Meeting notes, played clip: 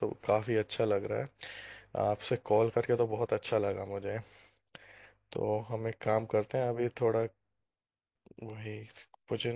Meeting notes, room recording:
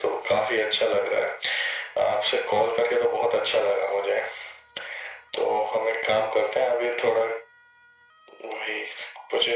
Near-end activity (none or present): none